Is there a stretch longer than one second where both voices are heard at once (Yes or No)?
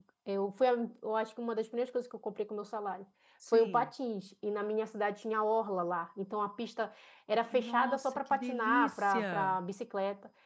Yes